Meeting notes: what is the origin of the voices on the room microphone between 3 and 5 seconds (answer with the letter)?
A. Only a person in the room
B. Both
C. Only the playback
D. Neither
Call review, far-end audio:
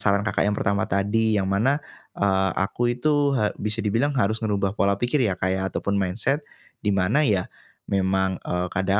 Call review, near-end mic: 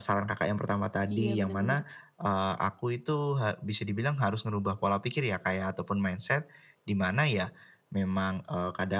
C